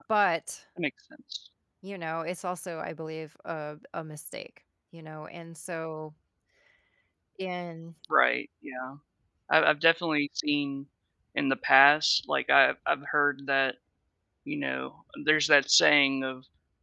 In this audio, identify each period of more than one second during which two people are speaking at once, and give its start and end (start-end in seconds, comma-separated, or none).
none